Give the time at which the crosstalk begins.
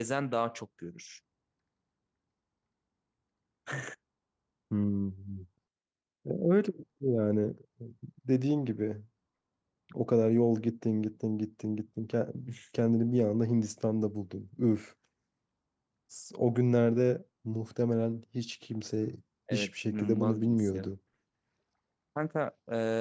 20 s

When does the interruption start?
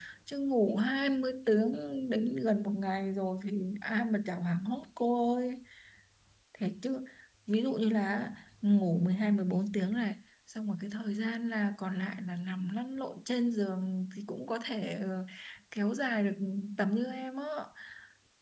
none

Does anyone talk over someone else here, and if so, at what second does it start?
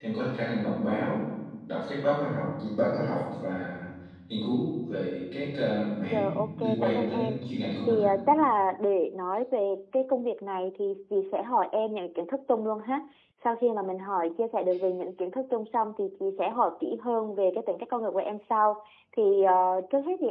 6 s

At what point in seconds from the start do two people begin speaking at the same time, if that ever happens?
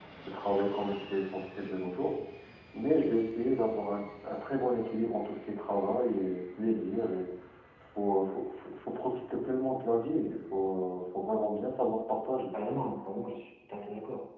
none

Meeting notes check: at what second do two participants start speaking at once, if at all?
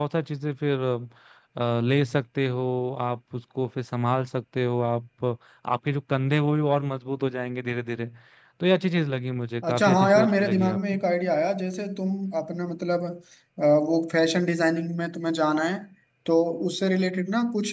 10 s

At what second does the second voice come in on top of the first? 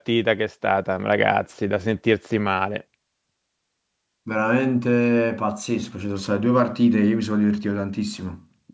none

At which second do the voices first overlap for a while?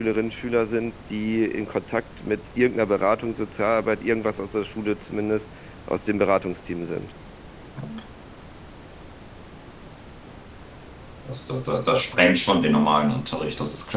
none

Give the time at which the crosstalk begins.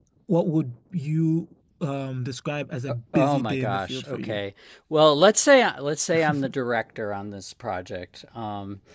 3 s

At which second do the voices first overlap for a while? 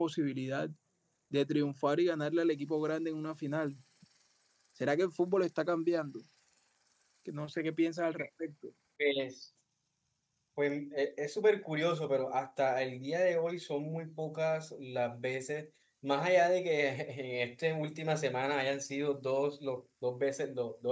none

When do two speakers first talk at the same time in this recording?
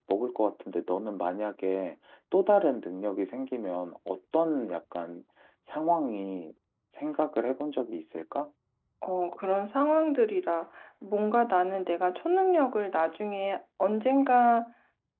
none

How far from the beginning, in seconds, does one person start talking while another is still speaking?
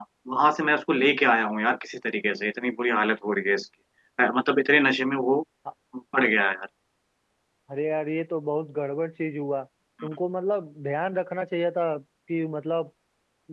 none

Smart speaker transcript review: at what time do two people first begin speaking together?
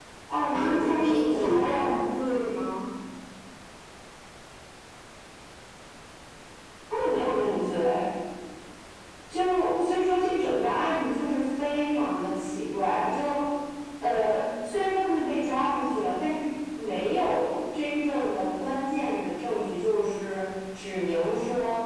1 s

